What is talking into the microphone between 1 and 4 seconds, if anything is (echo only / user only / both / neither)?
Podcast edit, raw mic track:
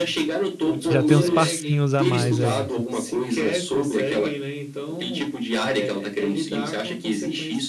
both